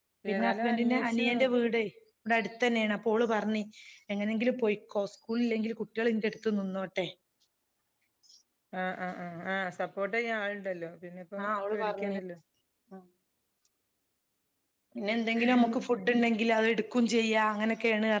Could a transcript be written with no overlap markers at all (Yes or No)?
No